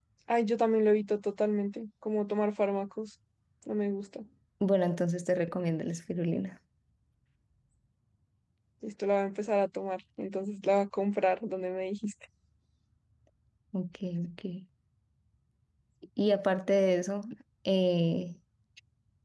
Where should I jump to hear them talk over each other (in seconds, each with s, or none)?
none